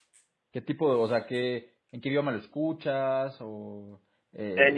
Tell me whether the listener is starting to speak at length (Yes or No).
Yes